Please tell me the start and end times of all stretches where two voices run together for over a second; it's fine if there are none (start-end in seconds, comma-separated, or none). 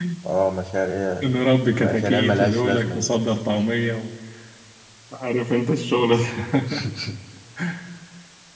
1.8-3.1